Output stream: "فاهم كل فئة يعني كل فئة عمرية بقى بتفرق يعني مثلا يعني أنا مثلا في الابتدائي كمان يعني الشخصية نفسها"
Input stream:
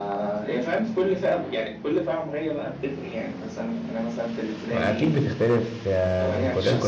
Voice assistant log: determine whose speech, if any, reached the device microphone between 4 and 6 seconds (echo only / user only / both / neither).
both